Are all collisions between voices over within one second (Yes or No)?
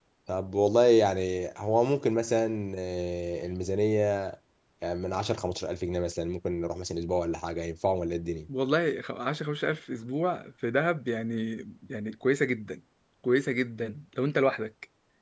Yes